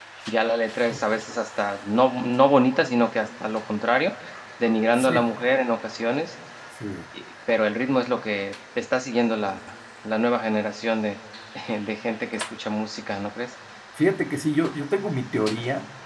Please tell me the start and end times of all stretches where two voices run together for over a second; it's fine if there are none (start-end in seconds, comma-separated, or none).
none